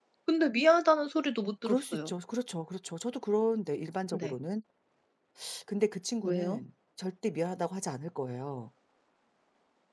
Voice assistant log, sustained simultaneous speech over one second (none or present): none